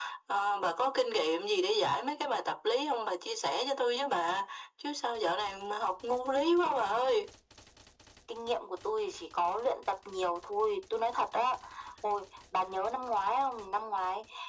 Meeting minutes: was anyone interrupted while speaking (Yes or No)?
No